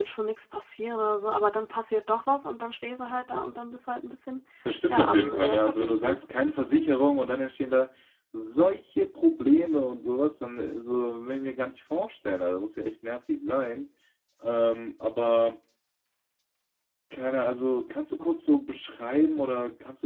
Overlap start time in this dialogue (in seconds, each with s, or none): 4.9 s